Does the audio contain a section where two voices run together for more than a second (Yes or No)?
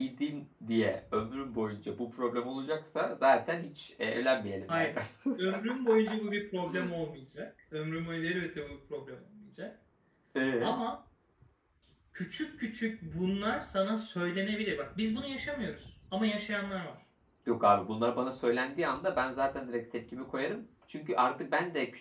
No